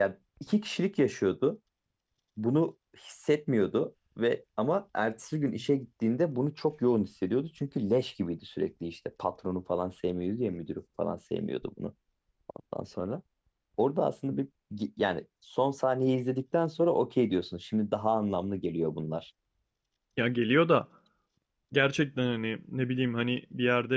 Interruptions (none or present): none